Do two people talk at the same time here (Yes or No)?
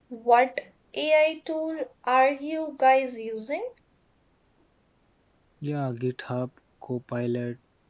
No